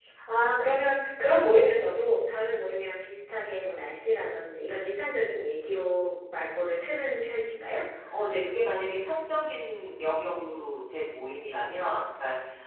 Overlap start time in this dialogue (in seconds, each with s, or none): none